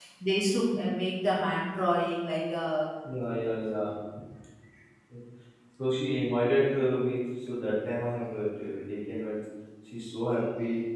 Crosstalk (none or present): none